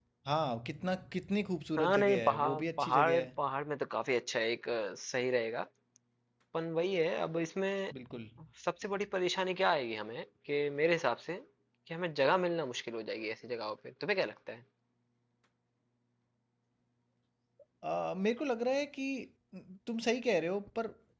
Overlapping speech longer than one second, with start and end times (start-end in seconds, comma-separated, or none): 1.8-3.2